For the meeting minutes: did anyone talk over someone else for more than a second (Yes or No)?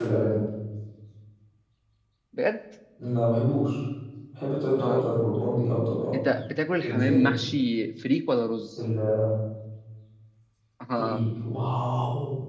No